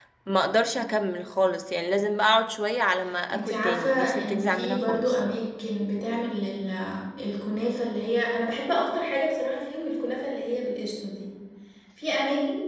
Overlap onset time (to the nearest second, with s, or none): 3 s